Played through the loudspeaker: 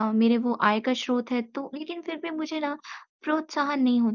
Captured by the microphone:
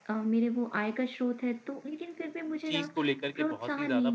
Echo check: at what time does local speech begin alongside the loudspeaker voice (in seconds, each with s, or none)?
2.6 s